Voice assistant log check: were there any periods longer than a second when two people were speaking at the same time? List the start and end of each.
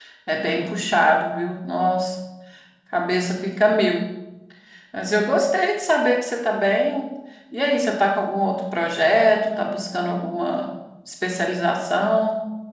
none

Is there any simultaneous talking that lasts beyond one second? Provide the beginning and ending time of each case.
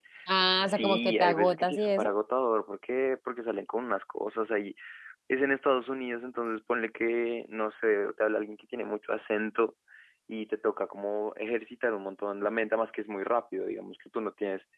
0.6-2.1

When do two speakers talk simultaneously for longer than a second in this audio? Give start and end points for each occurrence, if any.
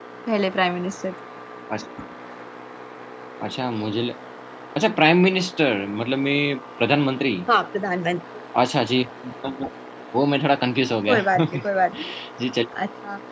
none

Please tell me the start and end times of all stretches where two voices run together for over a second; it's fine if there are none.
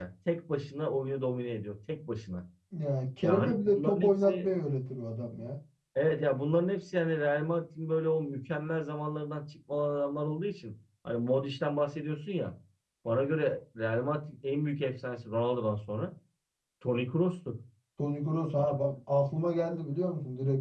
3.2-4.5

